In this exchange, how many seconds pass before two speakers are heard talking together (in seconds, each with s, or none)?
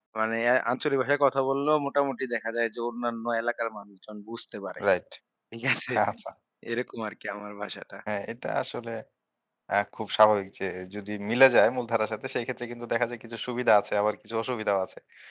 none